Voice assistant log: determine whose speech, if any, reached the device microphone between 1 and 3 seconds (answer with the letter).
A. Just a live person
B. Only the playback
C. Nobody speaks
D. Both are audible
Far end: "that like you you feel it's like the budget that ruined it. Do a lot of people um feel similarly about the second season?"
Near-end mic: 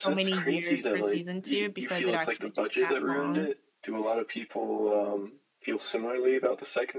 D